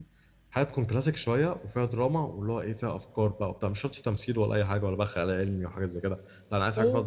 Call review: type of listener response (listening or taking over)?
listening